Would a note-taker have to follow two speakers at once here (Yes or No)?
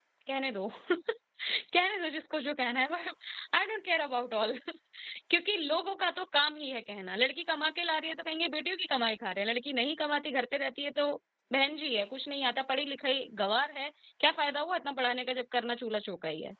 No